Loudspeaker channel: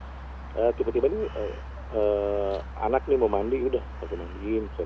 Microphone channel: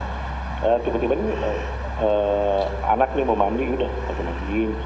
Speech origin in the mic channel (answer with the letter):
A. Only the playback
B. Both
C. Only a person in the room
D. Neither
A